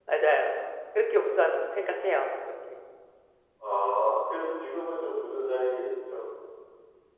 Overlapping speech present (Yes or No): No